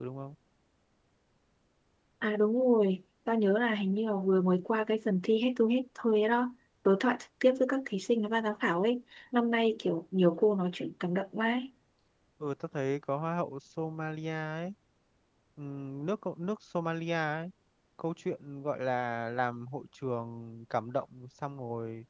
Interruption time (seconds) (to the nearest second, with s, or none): none